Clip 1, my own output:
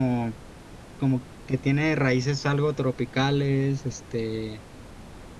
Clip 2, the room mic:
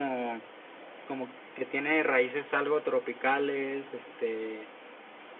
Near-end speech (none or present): none